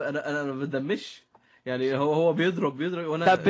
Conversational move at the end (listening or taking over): taking over